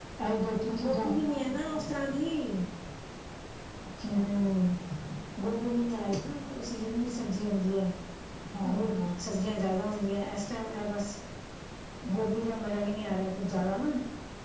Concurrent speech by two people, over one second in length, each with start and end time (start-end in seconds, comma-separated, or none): 0.7-1.9